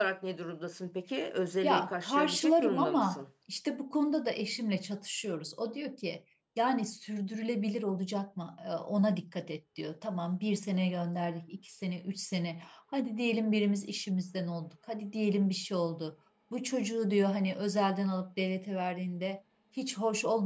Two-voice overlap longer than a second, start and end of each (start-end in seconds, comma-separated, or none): 1.6-3.2